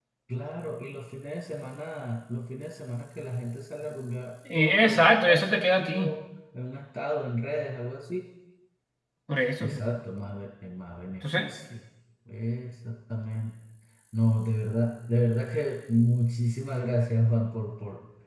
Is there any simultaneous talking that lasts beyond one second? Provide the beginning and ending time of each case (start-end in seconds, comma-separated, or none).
4.5-6.1